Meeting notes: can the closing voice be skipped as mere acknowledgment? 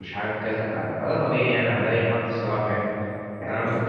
Yes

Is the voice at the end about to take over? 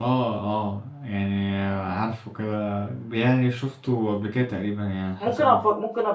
Yes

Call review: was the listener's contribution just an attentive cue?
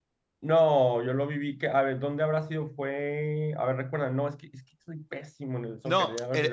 No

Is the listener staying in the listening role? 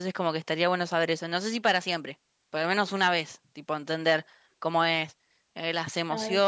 Yes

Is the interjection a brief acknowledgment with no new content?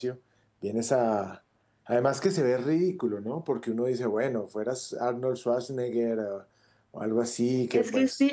No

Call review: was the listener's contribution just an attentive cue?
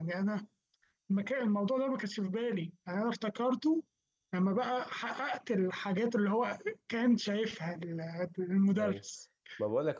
No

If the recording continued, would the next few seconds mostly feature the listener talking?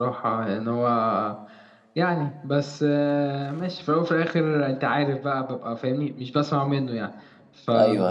Yes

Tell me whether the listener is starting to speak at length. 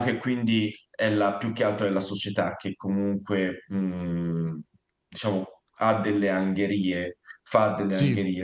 No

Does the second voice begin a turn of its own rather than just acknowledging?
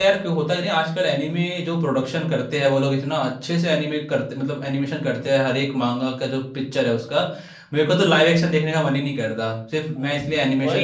Yes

